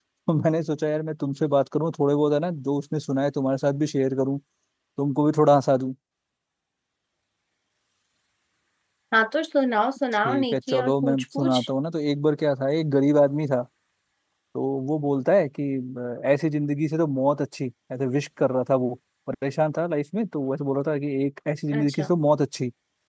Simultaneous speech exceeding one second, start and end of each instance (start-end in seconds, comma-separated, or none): 10.2-11.6